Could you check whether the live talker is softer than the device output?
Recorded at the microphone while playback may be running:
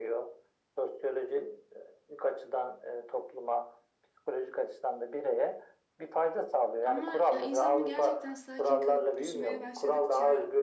Yes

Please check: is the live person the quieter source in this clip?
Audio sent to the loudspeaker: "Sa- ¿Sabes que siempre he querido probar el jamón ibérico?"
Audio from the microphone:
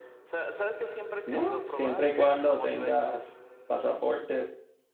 No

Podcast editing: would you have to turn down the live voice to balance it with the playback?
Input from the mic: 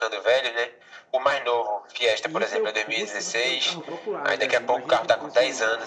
No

